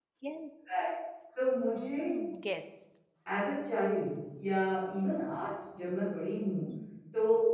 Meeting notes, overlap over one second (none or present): none